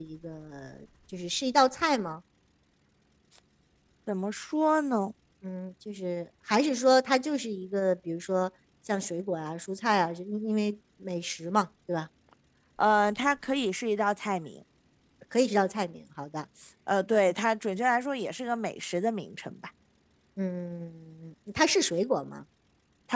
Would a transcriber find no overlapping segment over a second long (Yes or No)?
Yes